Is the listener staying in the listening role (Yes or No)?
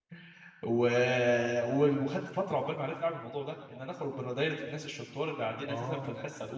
Yes